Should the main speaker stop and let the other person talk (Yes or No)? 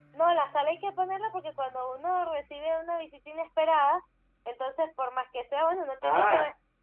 Yes